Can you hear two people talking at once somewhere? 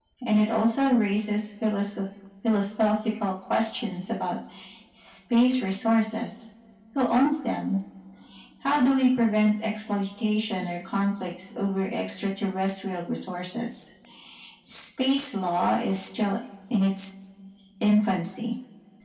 No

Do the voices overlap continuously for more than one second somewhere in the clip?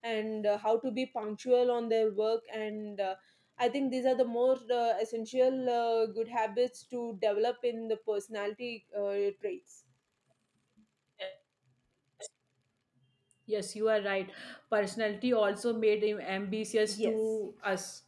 No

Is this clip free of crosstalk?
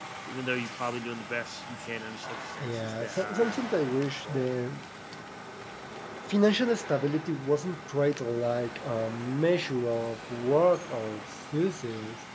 No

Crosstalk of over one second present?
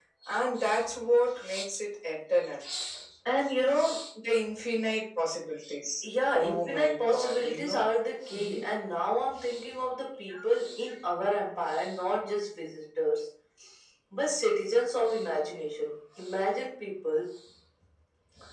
Yes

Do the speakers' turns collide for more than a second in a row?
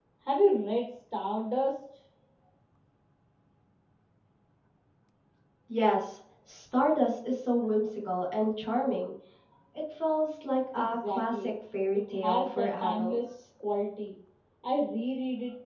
Yes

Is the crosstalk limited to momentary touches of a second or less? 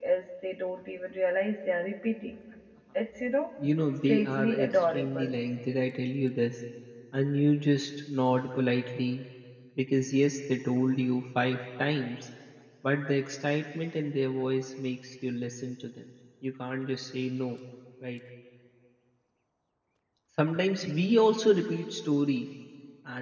No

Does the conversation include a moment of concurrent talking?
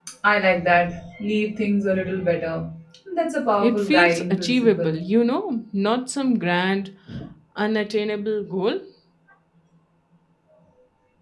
Yes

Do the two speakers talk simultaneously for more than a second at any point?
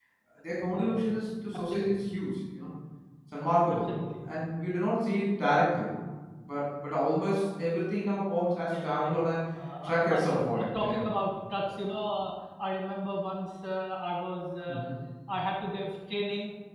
Yes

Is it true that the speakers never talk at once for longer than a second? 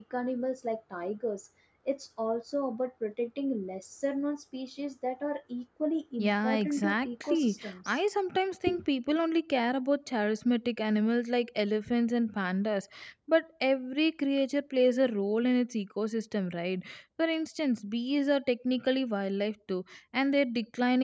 No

